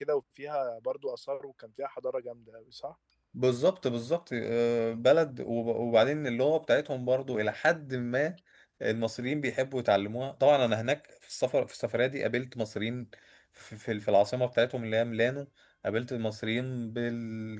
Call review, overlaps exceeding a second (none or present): none